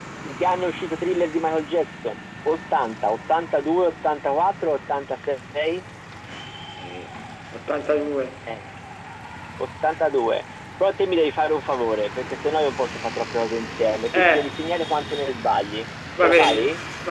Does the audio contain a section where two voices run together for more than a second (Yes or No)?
No